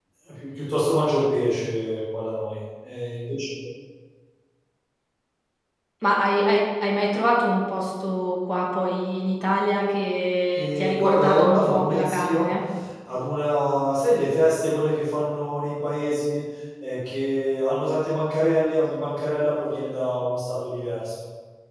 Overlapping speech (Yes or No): Yes